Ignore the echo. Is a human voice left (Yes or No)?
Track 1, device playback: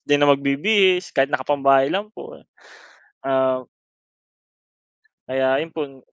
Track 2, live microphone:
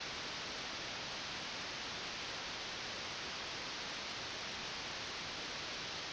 No